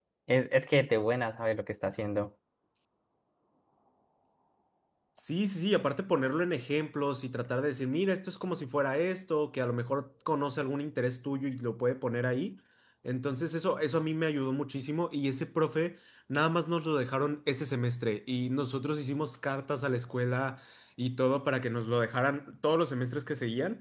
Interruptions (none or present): none